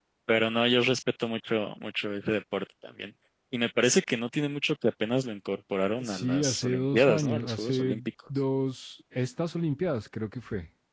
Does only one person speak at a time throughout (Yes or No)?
No